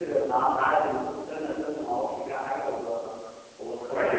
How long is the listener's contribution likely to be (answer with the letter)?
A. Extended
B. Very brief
A